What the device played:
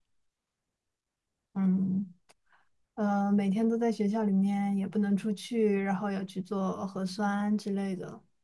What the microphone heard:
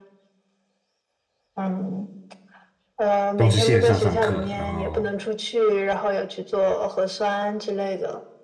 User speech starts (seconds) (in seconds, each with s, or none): 3.4 s